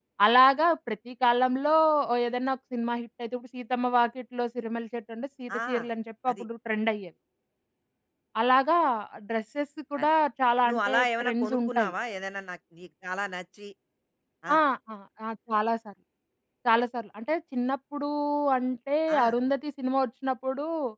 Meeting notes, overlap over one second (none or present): present